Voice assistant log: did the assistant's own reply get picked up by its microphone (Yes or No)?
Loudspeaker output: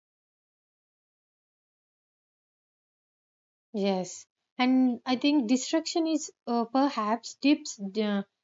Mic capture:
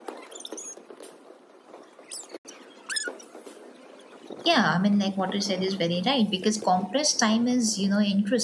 No